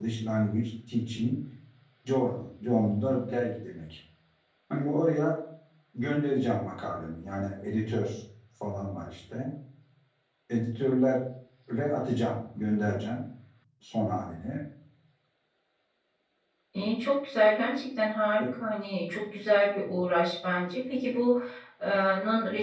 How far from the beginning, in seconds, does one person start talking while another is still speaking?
none

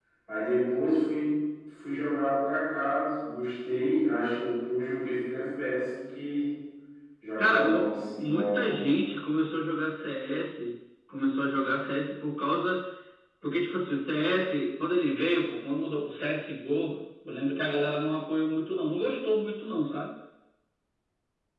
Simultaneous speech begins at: 7.4 s

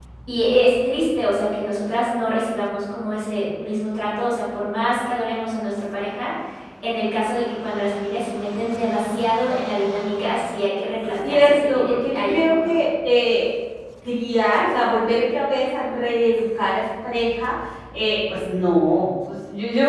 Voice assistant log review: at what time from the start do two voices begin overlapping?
11.2 s

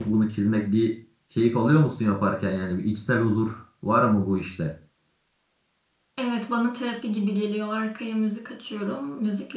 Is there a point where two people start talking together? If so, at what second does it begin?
none

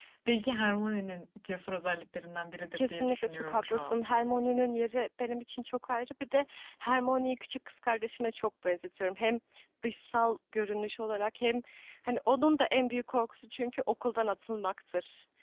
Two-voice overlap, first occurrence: 2.8 s

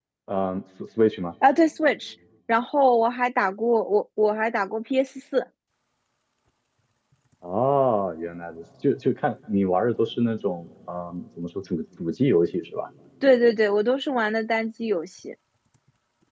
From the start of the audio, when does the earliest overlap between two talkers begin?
none

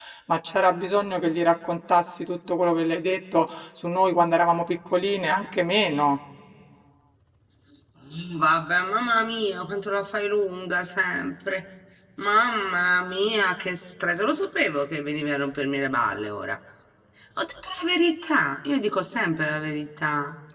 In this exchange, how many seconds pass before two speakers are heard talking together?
none

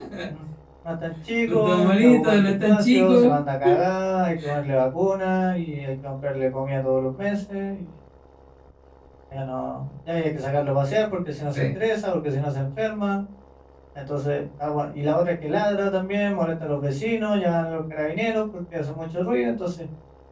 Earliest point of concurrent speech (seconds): 1.5 s

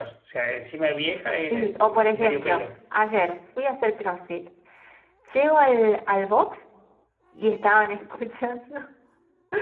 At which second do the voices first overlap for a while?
1.4 s

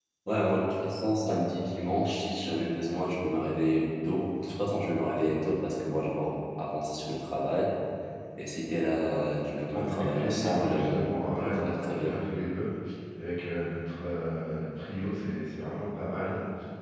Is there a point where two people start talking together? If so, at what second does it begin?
9.7 s

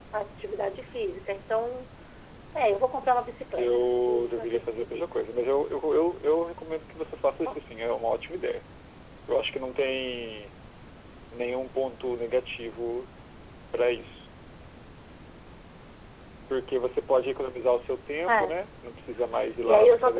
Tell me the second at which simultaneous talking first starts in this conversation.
3.6 s

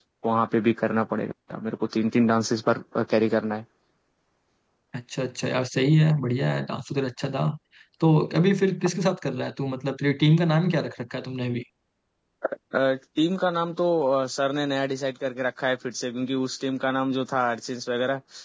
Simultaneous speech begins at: none

